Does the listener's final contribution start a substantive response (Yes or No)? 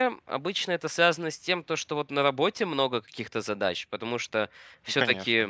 No